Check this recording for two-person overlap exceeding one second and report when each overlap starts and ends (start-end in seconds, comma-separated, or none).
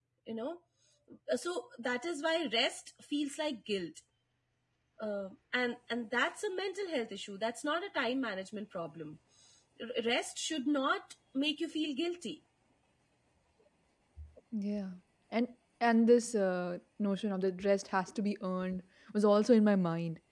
none